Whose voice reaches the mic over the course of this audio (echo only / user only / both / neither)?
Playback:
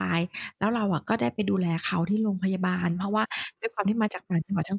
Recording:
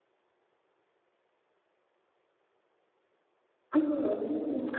user only